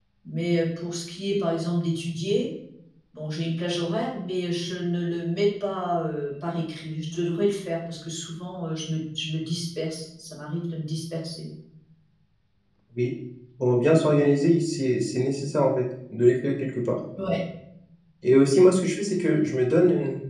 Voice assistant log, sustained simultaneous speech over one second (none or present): none